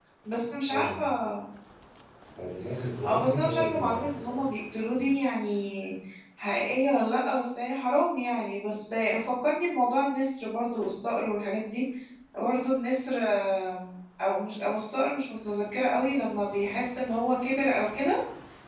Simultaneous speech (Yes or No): Yes